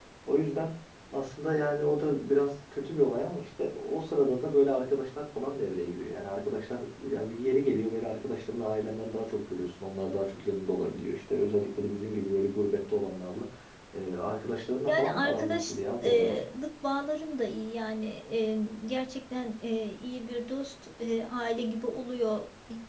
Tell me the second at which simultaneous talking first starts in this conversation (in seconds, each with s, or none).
14.9 s